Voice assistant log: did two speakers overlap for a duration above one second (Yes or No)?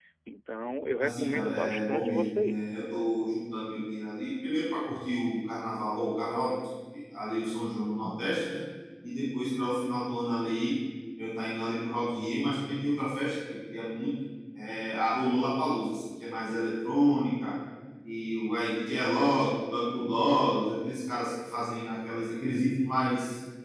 Yes